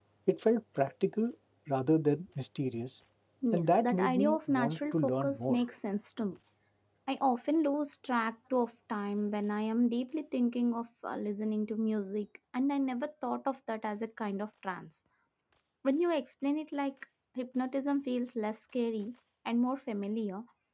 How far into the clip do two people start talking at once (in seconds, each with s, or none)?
3.5 s